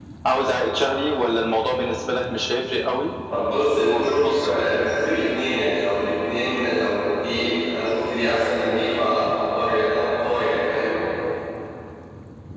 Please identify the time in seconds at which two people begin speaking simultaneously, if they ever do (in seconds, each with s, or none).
3.7 s